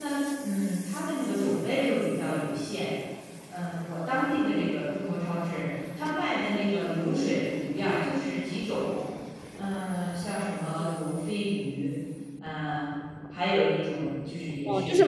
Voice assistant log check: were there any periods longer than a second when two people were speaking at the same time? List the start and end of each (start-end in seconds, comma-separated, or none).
none